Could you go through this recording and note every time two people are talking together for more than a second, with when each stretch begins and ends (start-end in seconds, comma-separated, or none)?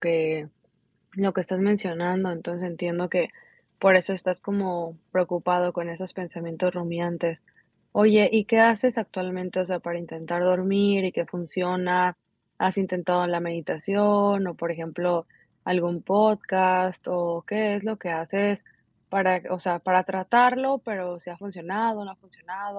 none